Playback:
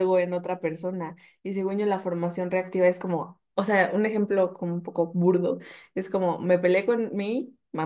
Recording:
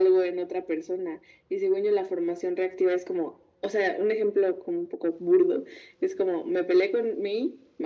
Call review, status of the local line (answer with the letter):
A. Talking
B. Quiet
B